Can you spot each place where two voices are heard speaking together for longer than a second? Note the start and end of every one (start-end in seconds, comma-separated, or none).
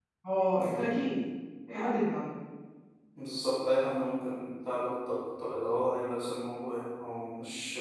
none